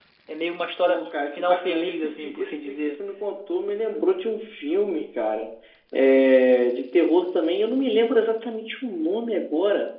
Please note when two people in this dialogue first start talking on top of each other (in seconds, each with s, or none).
0.9 s